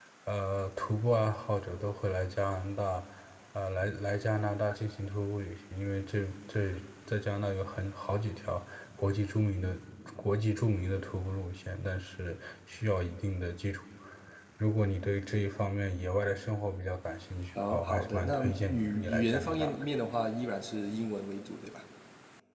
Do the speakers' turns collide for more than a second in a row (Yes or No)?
Yes